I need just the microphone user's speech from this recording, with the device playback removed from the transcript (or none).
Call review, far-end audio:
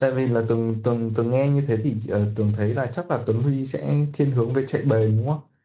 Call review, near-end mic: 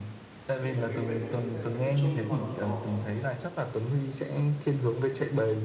tôi thấy mấy quyển này nó sẽ là cái tích chung còn có